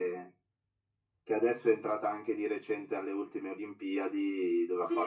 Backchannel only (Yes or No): No